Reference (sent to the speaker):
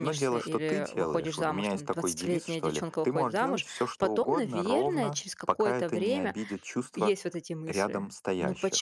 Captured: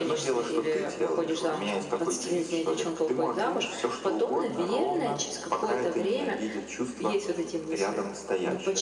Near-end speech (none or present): none